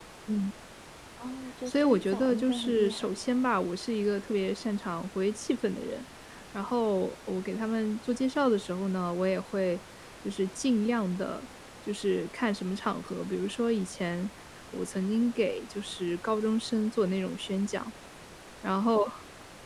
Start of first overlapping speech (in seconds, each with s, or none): 1.7 s